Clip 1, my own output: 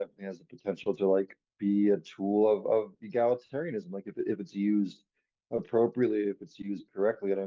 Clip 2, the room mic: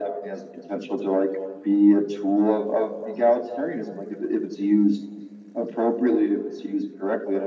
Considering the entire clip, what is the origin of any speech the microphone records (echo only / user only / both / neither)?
echo only